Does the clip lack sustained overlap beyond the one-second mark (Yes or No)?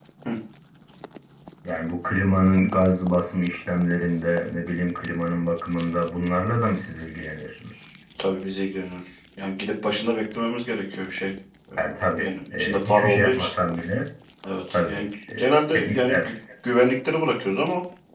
No